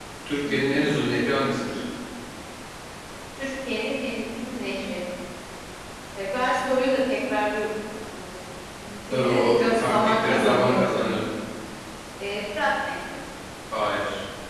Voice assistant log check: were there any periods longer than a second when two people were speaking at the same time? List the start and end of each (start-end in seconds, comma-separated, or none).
9.1-10.9